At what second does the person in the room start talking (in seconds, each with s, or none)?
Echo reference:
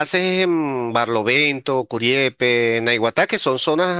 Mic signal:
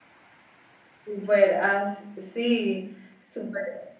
1.0 s